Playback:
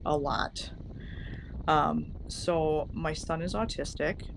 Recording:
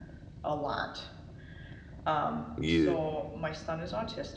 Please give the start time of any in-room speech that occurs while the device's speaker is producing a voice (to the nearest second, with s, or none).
3 s